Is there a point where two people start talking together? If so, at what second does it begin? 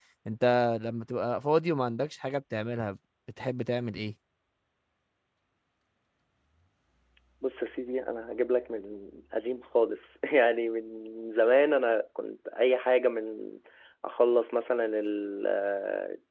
none

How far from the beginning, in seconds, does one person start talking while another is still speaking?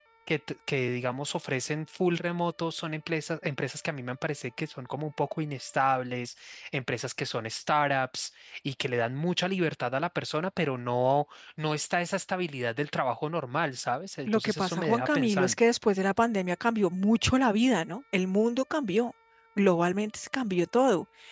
14 s

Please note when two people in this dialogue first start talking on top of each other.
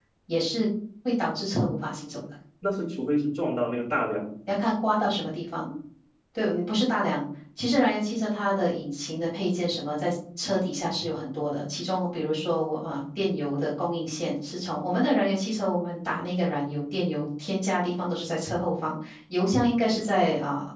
none

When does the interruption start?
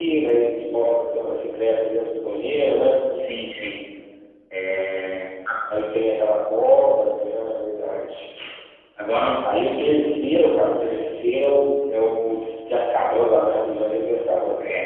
none

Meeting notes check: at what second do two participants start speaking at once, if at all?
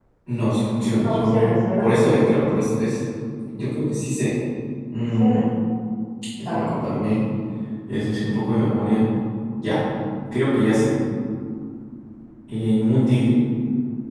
1 s

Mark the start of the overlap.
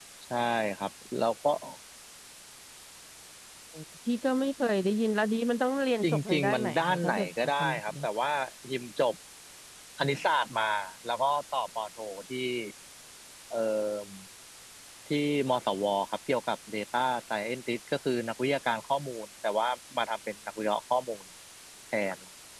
6 s

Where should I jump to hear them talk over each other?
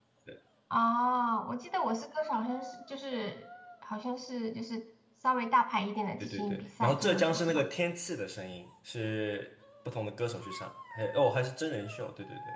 6 s

